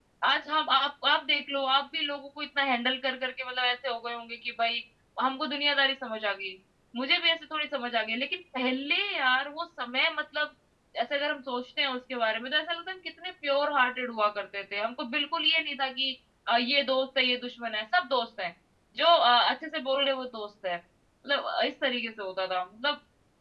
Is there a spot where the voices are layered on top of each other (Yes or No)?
No